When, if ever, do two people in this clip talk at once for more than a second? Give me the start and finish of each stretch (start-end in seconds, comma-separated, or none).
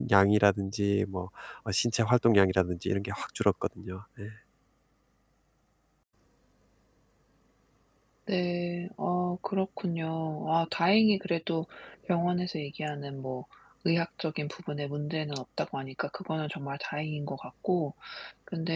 none